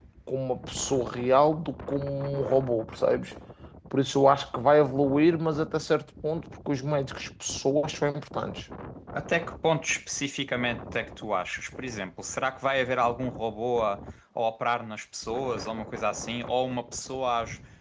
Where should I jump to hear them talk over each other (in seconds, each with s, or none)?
none